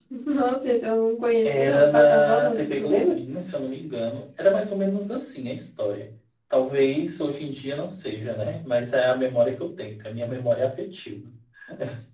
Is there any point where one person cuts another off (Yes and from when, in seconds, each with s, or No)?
Yes, from 1.4 s